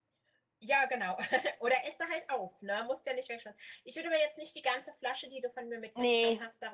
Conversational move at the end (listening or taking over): listening